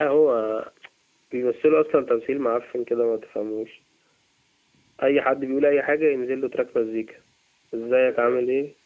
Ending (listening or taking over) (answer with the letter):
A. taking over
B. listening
B